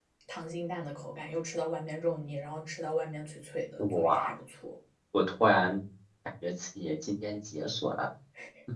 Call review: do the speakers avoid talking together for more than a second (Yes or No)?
Yes